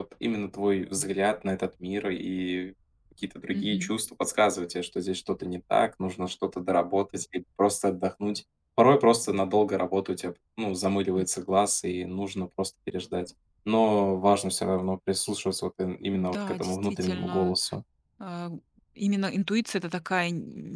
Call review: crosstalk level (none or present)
present